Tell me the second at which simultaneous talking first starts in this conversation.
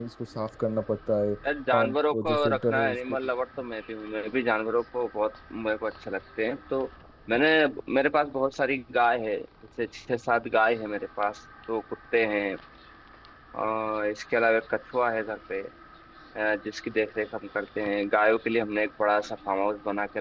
1.7 s

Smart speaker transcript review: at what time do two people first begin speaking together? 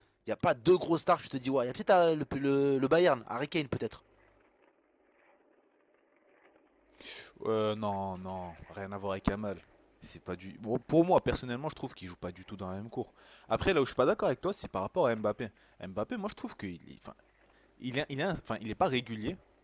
none

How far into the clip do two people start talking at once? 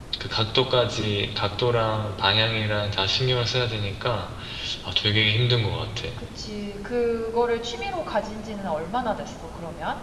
none

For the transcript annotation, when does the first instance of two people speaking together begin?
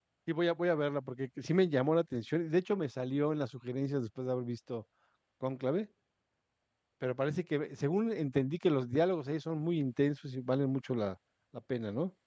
none

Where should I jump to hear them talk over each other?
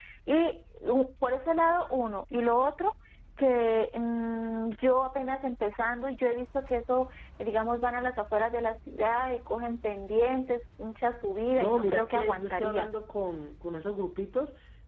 11.6 s

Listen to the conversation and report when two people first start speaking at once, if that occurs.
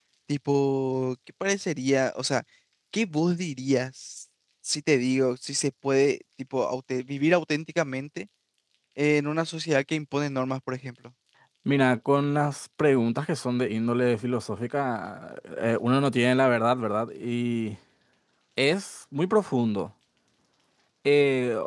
none

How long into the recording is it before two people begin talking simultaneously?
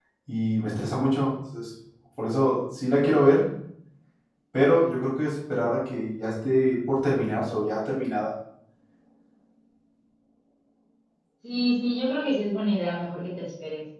none

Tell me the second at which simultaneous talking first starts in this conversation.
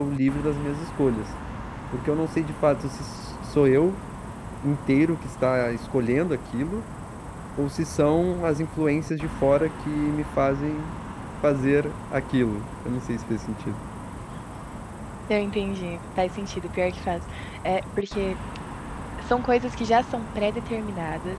none

